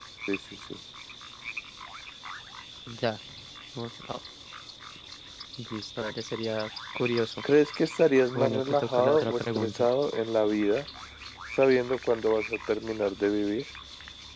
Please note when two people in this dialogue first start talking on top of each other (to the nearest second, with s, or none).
8 s